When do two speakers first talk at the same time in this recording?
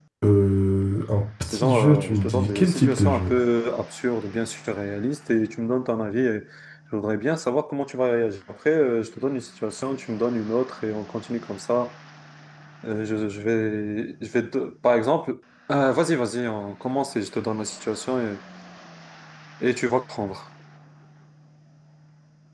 1.4 s

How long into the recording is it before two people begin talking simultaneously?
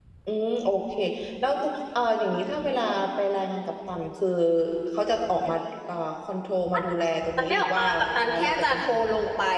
7.4 s

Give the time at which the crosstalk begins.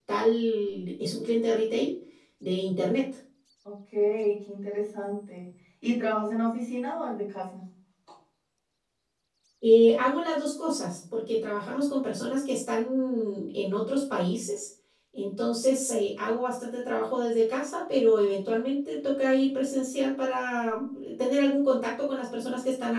none

